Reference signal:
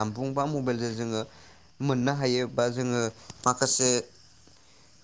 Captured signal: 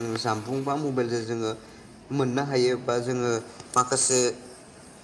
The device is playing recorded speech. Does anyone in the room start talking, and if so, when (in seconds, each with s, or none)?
none